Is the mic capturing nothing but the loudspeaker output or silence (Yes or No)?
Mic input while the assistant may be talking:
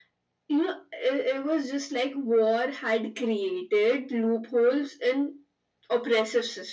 Yes